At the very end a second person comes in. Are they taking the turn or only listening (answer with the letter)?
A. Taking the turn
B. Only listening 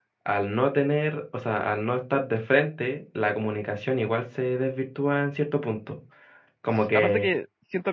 A